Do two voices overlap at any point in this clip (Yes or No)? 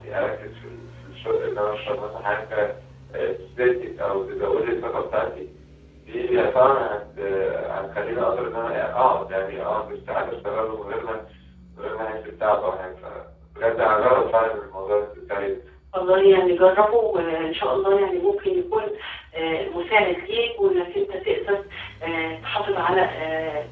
No